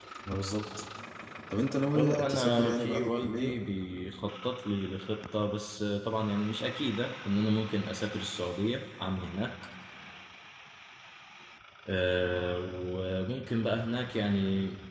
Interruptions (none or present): present